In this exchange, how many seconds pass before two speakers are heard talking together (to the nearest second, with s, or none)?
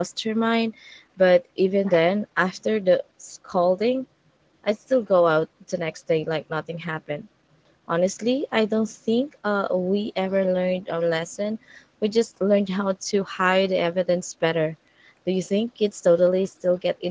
none